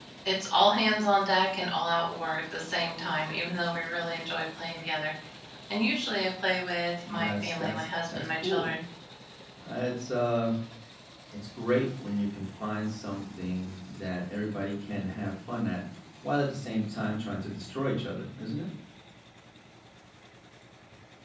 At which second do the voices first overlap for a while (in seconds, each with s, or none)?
7.0 s